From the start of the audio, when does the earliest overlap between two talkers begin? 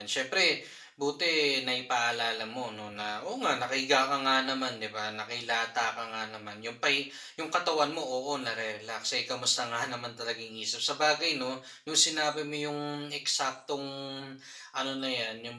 none

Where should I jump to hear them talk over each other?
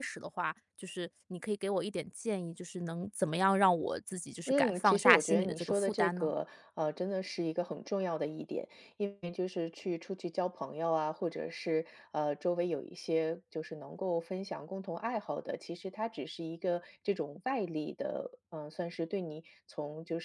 4.5 s

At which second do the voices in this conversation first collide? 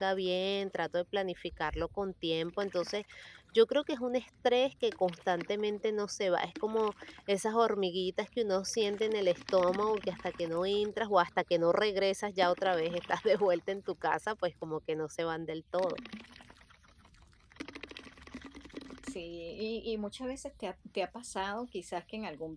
none

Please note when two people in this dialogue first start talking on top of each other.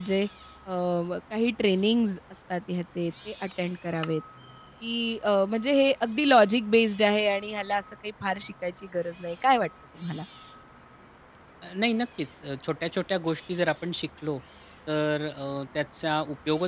none

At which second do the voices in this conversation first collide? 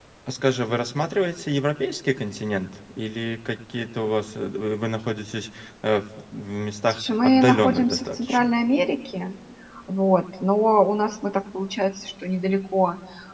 6.9 s

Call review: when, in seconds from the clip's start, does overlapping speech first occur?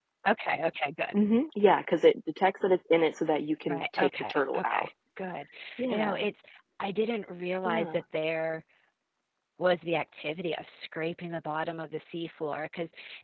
3.7 s

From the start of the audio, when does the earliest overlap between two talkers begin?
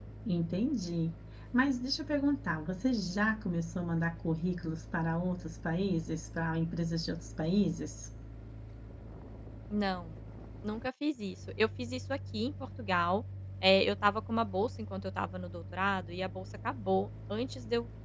none

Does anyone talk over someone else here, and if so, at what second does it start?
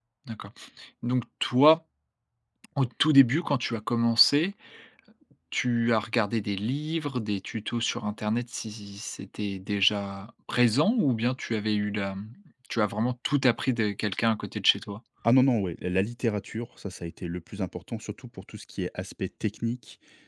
none

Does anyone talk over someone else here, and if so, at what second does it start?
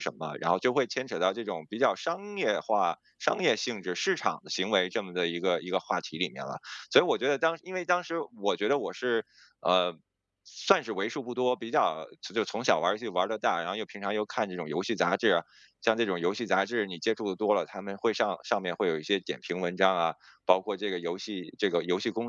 none

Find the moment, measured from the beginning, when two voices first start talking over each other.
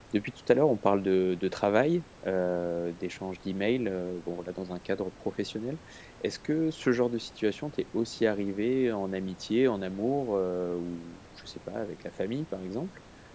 none

